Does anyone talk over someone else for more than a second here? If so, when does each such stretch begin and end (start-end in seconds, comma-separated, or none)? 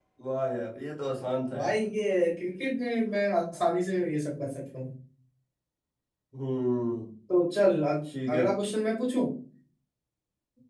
none